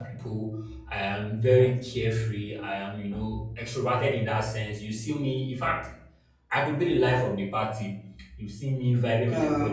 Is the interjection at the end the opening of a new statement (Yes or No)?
No